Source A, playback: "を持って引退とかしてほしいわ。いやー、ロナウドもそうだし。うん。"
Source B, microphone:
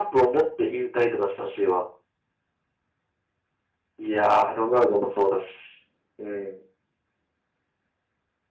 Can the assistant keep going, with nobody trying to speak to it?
Yes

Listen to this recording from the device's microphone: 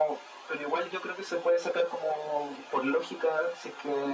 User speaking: No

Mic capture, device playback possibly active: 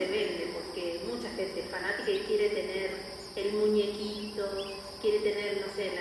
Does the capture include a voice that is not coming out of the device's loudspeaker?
No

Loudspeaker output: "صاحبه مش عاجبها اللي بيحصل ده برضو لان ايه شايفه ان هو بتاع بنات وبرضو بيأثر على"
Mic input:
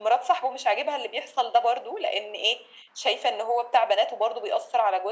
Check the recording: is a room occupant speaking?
No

